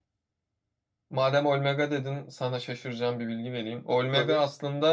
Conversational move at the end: listening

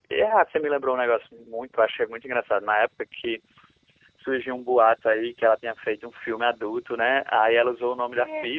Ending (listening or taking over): listening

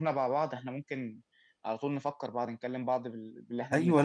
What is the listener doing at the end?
taking over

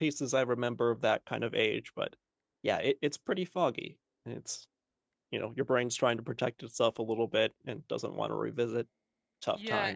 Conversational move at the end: taking over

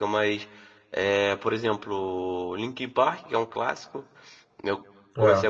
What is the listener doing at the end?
listening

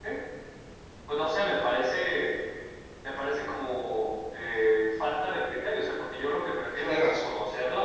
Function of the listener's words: listening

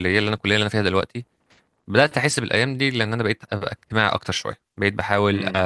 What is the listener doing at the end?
listening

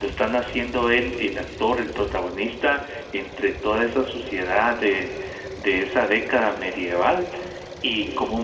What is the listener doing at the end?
listening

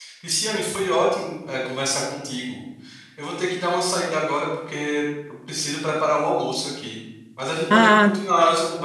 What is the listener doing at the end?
listening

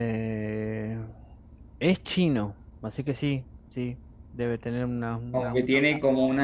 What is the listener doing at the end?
taking over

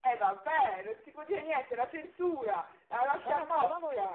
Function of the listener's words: taking over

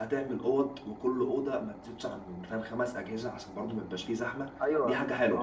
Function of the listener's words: taking over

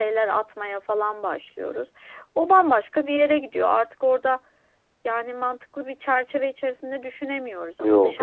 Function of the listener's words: listening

